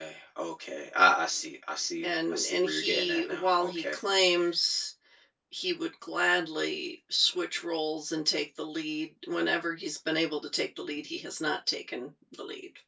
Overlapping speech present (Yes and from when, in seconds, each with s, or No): Yes, from 2.0 s